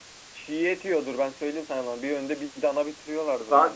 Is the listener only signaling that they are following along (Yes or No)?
No